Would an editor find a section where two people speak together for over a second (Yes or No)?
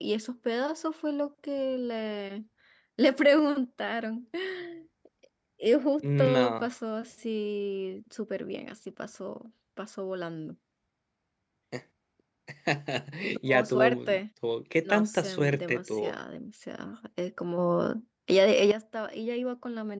Yes